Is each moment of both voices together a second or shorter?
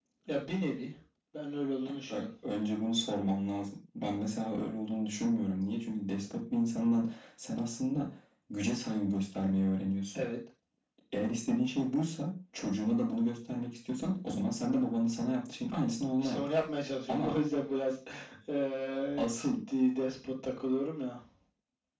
Yes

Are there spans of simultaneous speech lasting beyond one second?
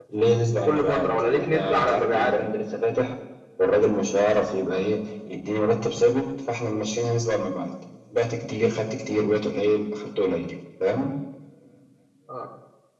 Yes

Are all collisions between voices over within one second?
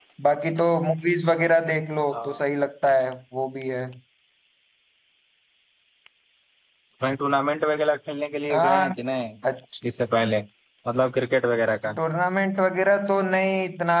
Yes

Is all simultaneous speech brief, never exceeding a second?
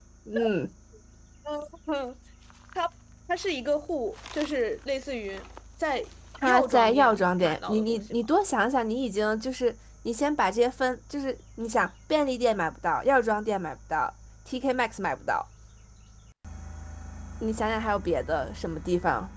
No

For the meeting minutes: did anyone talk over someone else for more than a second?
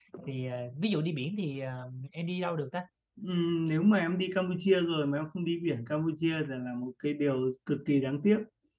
No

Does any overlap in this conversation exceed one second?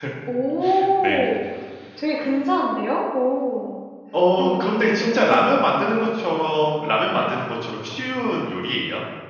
Yes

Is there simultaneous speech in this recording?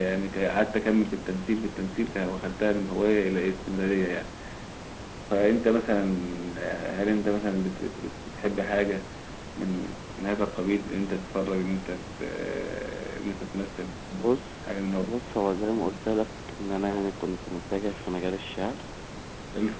No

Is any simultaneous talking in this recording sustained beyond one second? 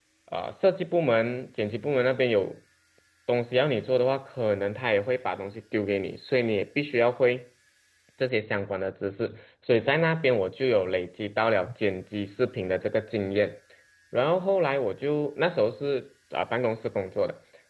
No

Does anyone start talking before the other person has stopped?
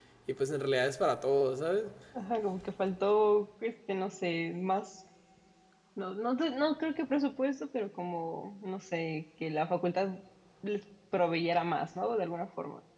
No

